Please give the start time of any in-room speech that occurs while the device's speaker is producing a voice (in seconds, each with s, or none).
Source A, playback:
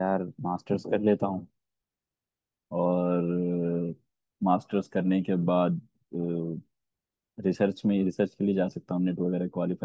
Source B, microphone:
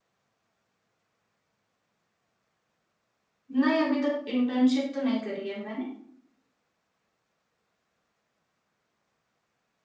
3.5 s